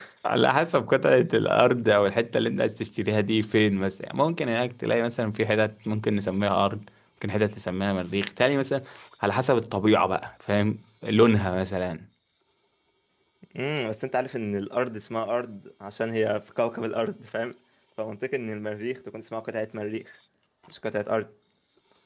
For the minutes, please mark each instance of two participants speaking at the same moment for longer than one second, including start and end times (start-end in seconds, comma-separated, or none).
none